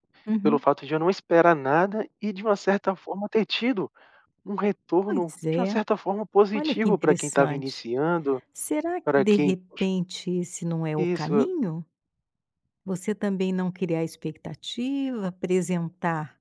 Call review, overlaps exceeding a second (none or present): present